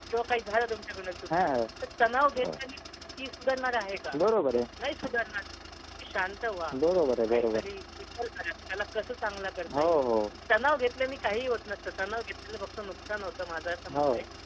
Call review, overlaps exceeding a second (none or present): none